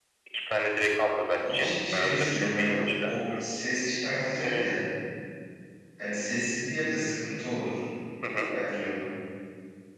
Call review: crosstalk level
present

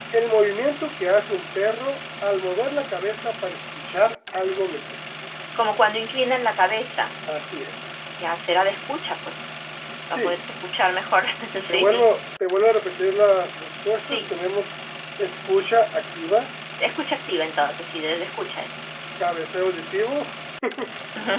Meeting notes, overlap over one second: none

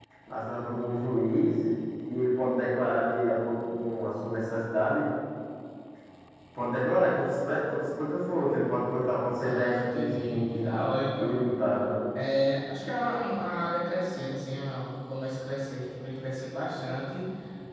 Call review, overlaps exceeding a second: present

